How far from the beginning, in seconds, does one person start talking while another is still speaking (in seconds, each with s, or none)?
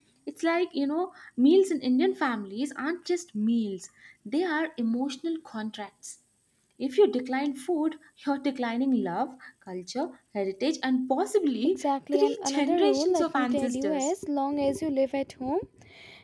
11.8 s